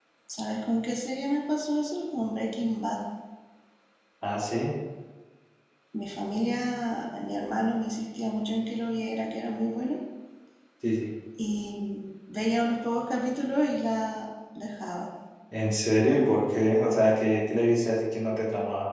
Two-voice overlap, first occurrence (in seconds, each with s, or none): none